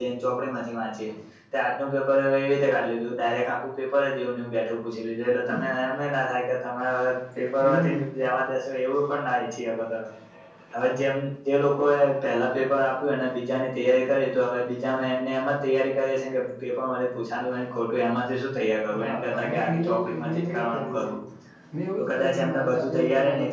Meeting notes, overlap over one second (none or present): present